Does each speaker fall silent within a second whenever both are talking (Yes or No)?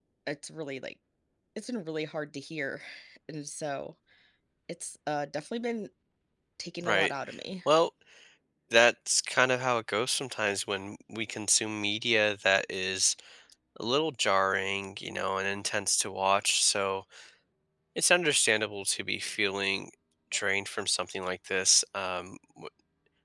Yes